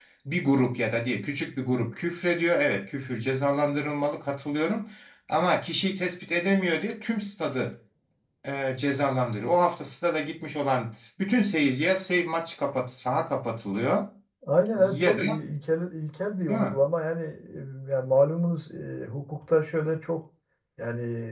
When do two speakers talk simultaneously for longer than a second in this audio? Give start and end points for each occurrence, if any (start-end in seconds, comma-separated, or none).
none